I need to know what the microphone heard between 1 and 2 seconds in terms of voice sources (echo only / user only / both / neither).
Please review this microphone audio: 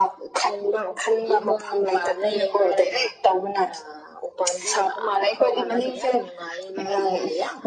echo only